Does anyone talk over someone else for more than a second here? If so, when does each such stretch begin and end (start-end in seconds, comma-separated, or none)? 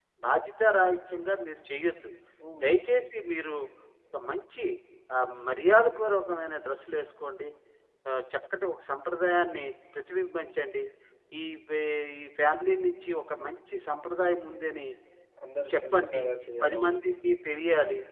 none